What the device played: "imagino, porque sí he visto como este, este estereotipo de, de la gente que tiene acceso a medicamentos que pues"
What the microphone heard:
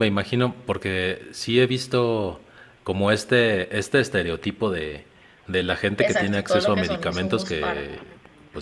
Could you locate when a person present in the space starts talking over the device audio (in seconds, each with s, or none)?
6.0 s